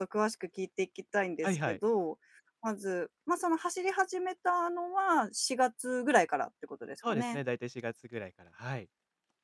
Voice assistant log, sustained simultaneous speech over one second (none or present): none